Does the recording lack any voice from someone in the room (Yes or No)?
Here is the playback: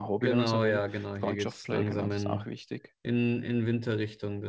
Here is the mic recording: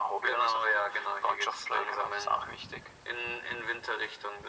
Yes